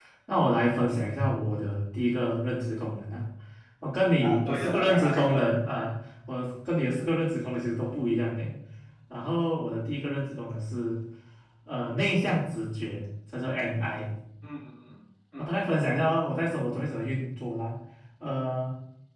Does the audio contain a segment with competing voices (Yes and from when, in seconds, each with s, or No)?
Yes, from 4.2 s